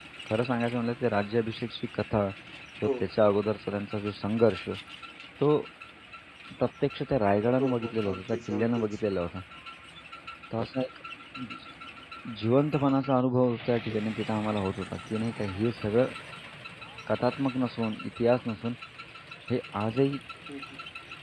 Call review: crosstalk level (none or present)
present